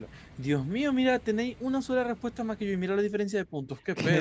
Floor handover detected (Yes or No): Yes